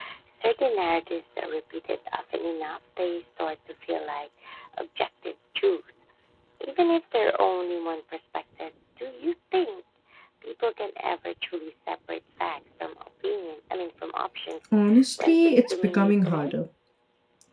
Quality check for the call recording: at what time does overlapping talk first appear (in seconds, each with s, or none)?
15.2 s